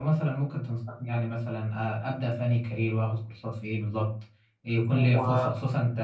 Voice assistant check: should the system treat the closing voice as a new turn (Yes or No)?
No